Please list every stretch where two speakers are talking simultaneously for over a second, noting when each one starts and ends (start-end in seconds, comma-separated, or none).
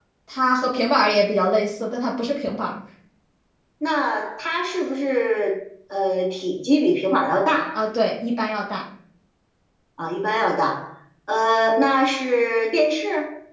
none